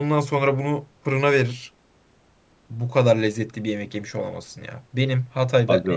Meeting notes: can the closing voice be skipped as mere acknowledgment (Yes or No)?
Yes